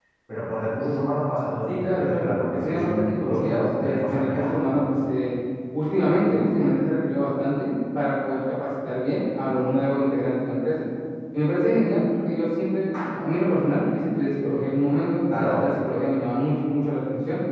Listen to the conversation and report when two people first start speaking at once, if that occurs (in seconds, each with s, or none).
1.7 s